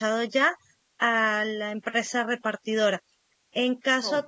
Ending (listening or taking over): listening